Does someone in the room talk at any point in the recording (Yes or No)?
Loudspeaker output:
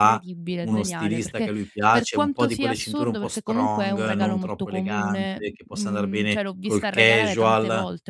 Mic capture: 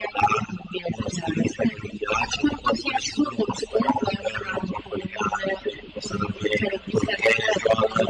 No